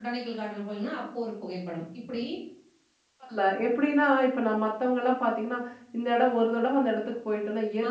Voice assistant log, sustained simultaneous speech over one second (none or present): none